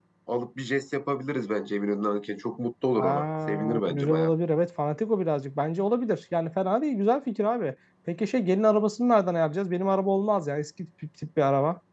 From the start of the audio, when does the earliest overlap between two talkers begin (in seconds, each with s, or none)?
3.0 s